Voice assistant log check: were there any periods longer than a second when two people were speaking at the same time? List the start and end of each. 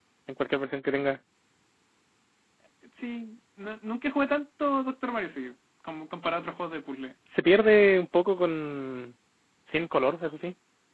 none

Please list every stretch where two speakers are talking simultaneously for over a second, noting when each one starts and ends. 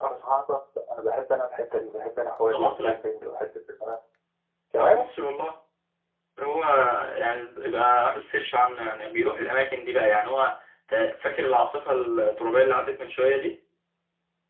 none

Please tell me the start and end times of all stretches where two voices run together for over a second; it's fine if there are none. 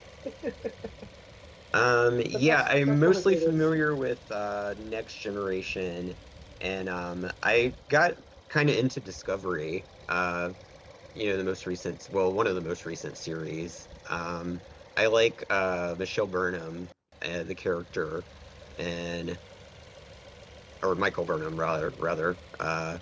2.3-3.5

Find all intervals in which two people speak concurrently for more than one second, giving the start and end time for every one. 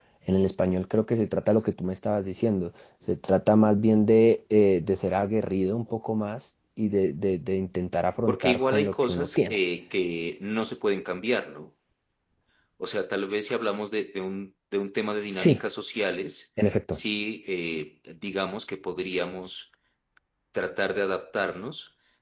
8.3-9.6

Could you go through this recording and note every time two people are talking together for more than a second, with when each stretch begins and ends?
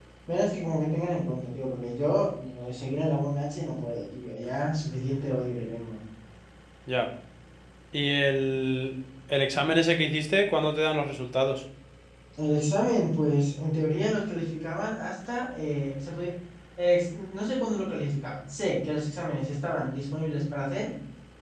none

